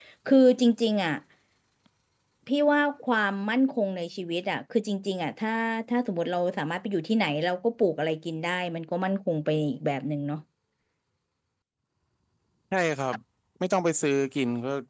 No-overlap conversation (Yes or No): Yes